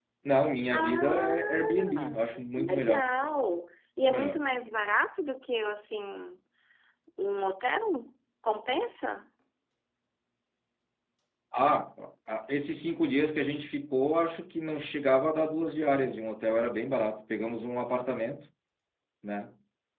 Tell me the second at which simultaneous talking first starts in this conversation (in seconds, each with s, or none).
0.7 s